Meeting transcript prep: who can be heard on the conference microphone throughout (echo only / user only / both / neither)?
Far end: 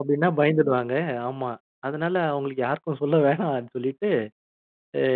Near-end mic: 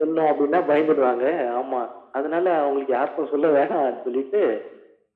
echo only